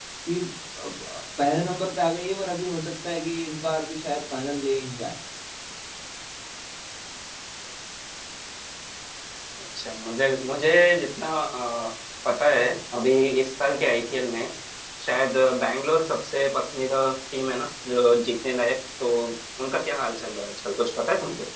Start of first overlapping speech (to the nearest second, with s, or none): none